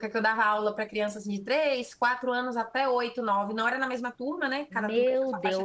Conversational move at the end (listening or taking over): taking over